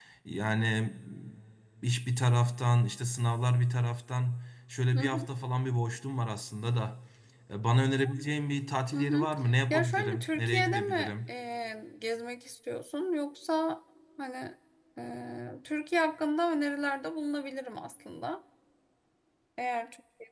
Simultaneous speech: Yes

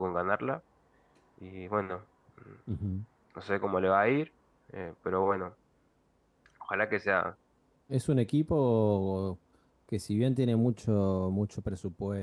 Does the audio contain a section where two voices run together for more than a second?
No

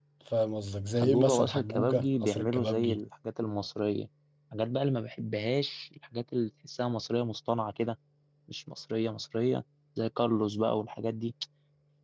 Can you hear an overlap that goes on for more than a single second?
Yes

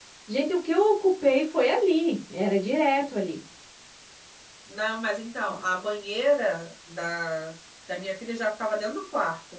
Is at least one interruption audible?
No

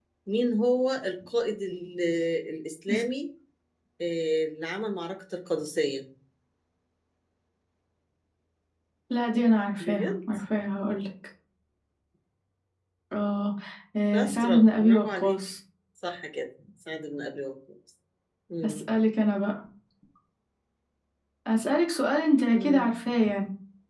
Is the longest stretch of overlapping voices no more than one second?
No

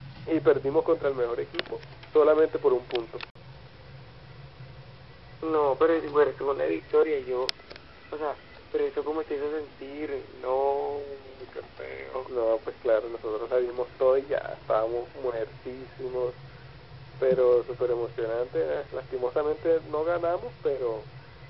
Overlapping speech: No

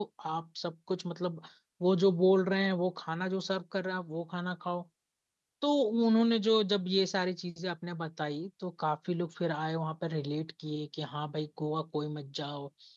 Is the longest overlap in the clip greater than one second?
No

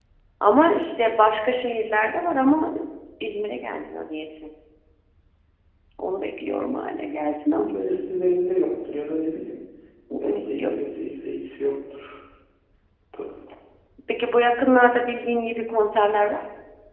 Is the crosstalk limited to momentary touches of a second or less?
Yes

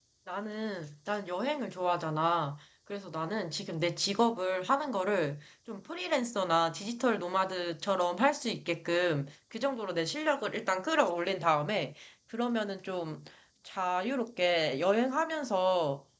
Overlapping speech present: No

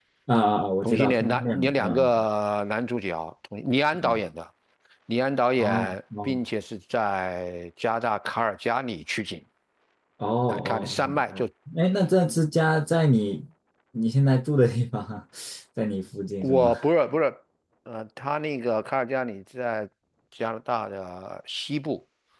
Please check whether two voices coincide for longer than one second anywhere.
Yes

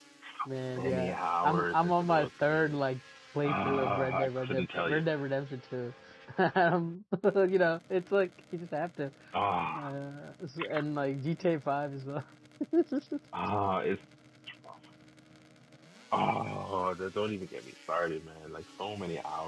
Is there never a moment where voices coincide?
No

